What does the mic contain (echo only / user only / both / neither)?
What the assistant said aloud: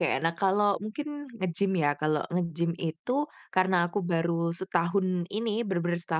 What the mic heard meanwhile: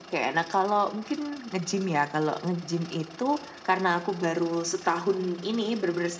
echo only